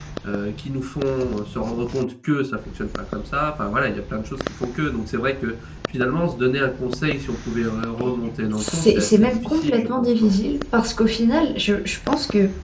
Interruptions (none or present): present